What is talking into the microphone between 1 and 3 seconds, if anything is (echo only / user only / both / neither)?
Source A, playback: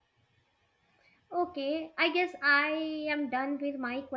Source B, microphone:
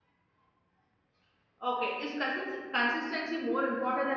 user only